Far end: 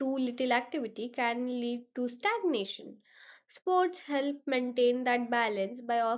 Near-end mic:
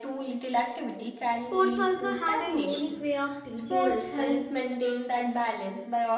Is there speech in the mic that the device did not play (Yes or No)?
Yes